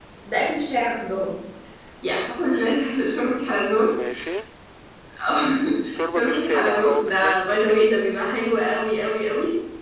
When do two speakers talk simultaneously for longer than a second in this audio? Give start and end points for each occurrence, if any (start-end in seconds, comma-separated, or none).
6.1-7.9